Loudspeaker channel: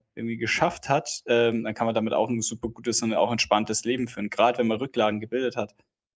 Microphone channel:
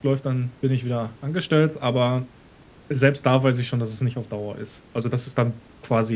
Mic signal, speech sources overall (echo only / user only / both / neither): user only